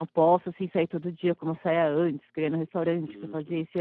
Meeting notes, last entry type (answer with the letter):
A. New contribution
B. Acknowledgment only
A